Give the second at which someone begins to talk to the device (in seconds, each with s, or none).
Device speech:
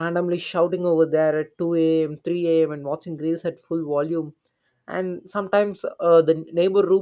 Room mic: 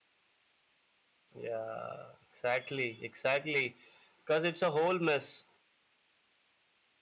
1.4 s